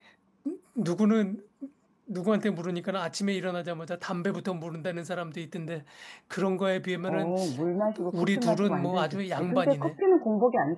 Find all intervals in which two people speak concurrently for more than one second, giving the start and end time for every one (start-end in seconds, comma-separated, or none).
8.1-9.9